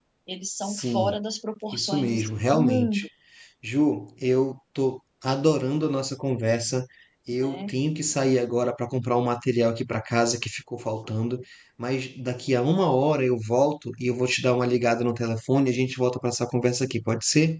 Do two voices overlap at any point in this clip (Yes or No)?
Yes